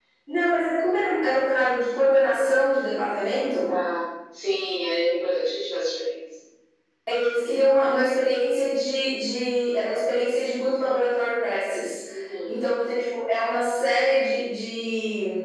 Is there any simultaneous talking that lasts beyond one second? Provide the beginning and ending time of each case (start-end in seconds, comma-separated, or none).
none